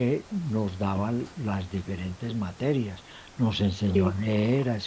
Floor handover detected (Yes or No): No